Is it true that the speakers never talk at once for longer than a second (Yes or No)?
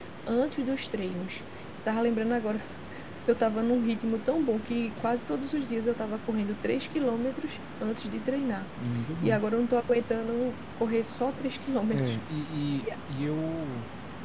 Yes